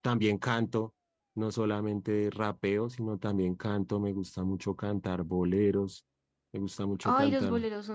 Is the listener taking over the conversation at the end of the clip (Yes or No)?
Yes